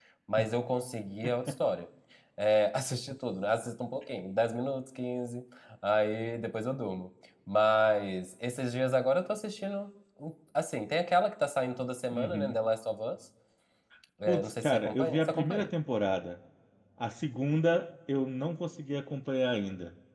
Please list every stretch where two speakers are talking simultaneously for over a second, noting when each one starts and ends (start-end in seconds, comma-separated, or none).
14.3-15.7